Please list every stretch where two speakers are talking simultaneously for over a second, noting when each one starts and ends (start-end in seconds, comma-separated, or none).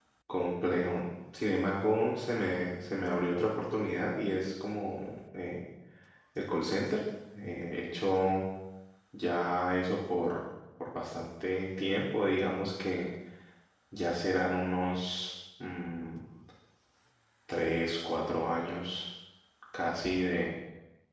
none